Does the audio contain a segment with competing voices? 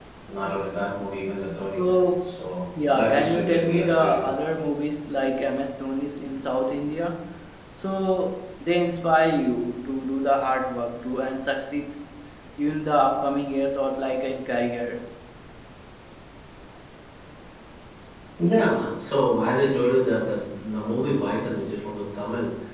Yes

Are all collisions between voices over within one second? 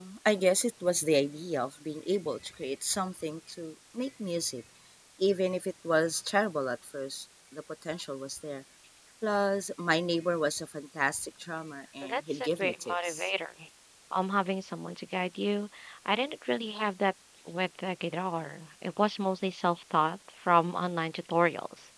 No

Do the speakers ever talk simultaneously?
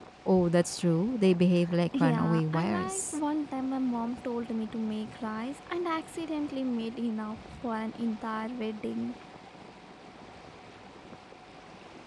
Yes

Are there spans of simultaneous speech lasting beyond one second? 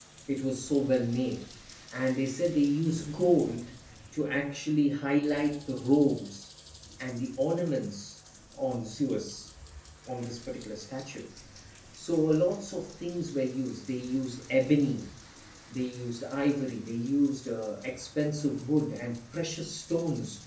No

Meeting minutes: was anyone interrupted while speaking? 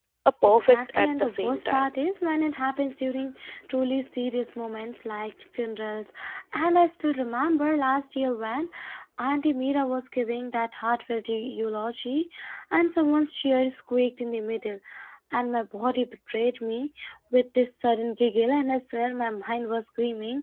Yes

